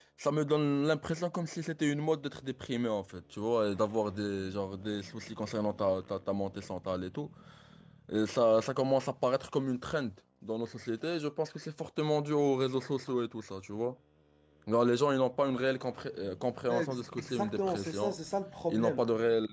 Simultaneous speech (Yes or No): Yes